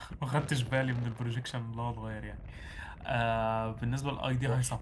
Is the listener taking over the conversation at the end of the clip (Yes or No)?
No